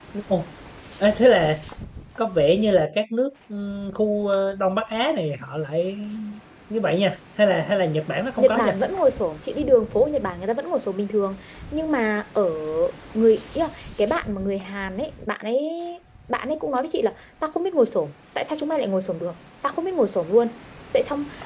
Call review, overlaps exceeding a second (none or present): none